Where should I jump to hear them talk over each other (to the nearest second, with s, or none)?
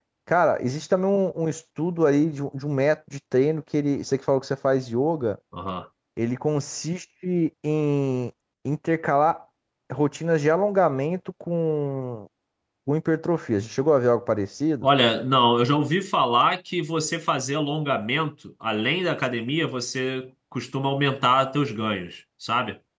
none